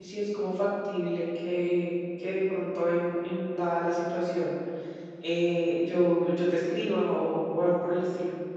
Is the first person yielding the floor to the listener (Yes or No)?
Yes